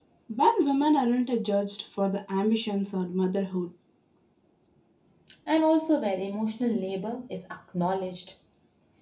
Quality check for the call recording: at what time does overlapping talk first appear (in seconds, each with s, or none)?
none